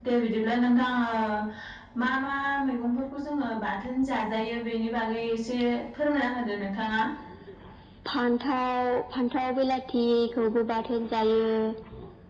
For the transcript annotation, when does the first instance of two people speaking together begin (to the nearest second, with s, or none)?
none